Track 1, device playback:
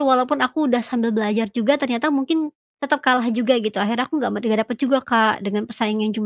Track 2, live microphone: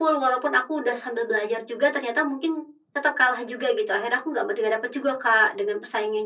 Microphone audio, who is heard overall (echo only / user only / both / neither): echo only